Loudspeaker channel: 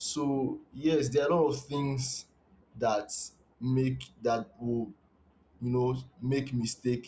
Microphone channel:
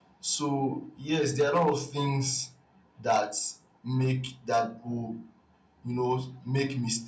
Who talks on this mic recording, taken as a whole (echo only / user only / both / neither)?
echo only